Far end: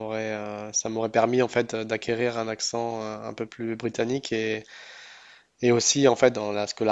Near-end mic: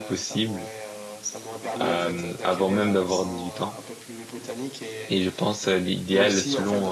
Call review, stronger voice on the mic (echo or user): user